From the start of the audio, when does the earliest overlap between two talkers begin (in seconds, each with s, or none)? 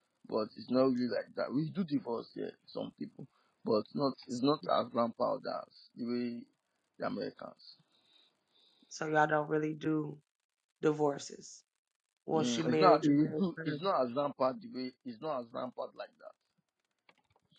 12.3 s